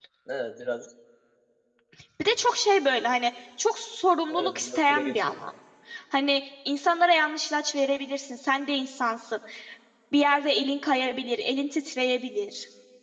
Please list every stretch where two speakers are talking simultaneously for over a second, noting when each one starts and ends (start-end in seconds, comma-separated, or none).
4.3-5.5